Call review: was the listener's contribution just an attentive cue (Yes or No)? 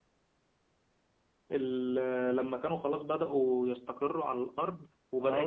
No